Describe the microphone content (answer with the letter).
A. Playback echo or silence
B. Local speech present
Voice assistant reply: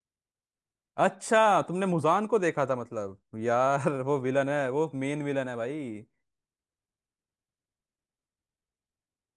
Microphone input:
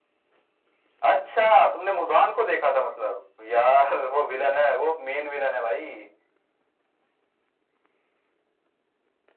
A